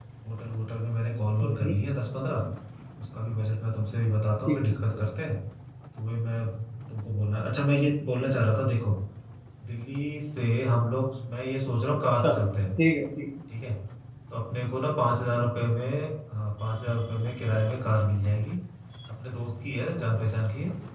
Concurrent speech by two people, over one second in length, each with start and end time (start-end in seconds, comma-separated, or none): none